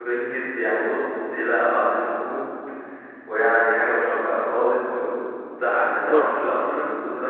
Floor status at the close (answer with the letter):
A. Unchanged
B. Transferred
A